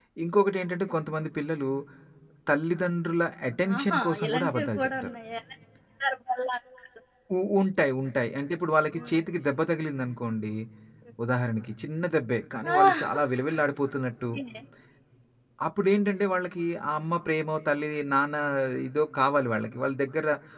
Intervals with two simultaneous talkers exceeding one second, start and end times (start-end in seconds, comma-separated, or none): 3.8-5.2